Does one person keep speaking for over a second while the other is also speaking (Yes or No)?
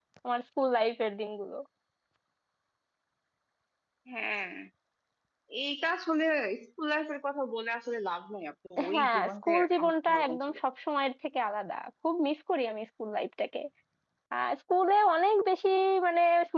Yes